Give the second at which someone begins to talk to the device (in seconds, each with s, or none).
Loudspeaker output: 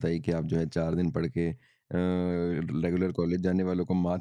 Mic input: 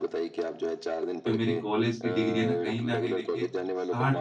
1.1 s